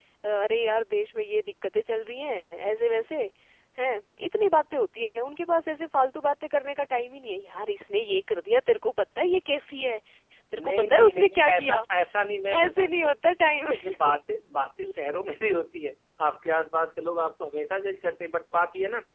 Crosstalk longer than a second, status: present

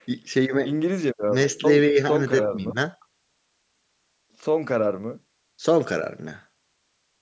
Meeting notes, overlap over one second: present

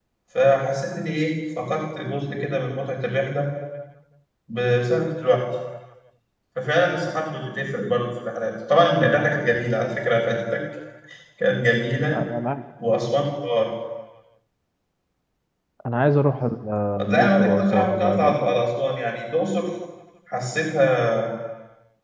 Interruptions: present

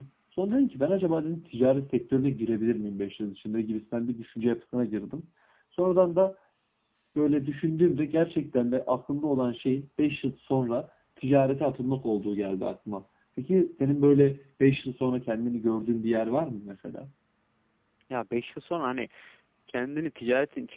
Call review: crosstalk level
none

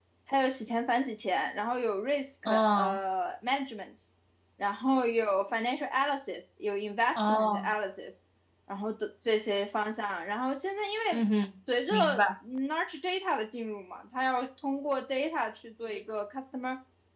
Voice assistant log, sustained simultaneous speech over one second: none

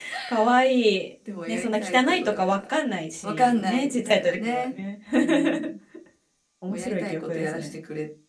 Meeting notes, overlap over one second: present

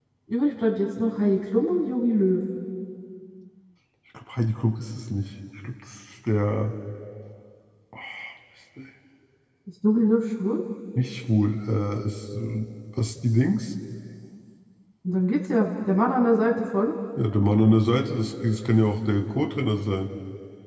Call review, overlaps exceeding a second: none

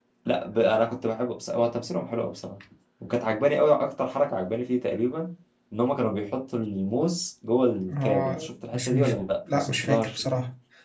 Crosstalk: present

